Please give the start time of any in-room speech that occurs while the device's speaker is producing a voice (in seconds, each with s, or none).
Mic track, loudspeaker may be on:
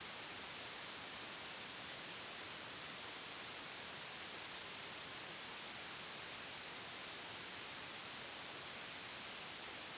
none